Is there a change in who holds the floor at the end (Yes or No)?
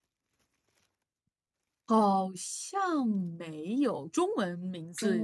Yes